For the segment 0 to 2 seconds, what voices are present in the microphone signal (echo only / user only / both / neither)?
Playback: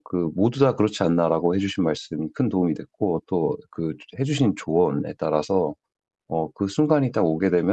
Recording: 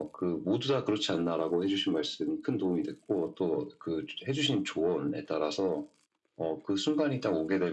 echo only